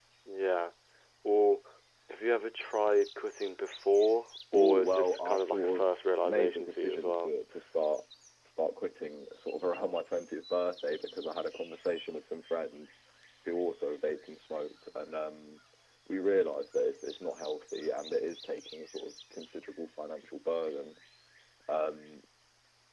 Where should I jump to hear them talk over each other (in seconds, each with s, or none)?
4.5 s